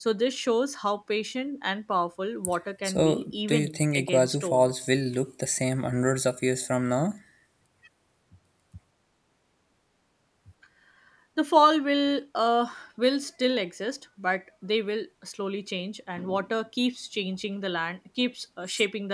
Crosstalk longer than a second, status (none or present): present